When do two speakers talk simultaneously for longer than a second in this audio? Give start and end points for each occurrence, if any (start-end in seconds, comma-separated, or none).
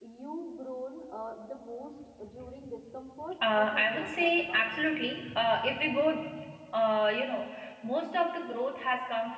3.4-4.8